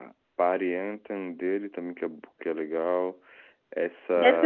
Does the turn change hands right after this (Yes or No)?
Yes